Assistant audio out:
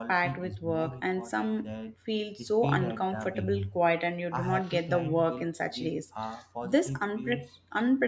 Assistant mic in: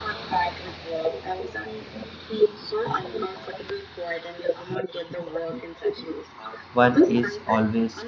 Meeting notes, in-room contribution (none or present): present